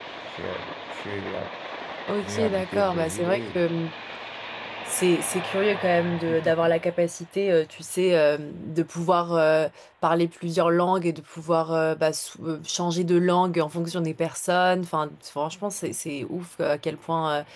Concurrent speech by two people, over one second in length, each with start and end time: 2.2-3.8

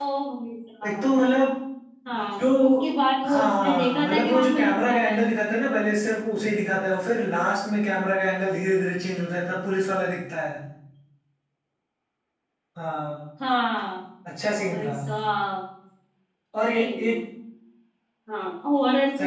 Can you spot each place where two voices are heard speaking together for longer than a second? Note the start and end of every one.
3.2-5.2

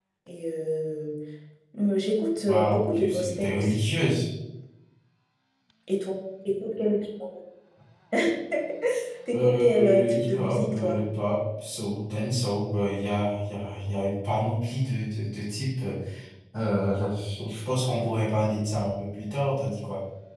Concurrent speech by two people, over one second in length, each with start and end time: 2.4-3.9, 9.3-11.0

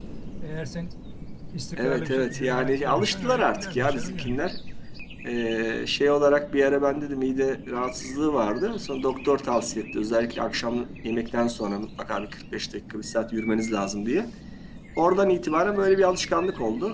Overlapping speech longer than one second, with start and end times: 1.8-4.4

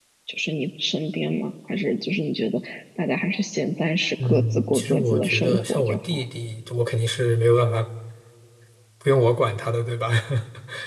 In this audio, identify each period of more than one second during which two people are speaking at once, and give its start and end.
4.2-6.2

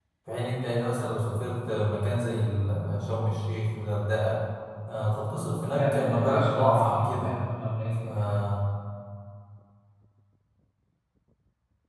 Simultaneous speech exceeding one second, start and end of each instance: 5.3-7.3

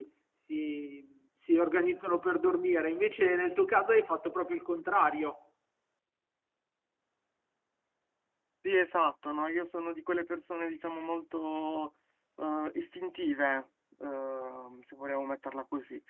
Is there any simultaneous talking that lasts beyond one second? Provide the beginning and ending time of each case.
none

